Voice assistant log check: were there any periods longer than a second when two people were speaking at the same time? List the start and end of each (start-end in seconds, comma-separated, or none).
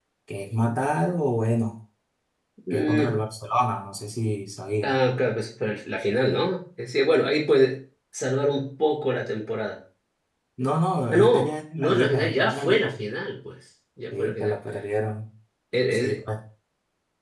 11.1-12.9